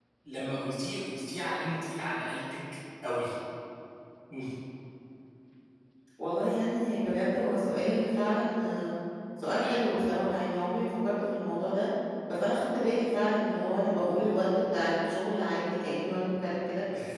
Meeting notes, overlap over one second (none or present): none